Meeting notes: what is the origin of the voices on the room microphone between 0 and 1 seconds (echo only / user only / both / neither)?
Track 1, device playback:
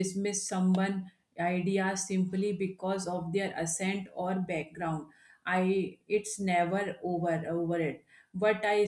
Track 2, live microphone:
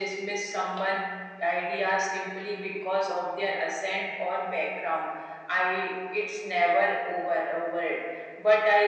echo only